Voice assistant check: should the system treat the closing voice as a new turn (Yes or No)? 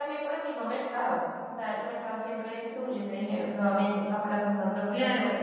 Yes